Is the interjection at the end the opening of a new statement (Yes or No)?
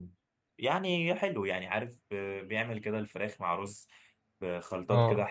No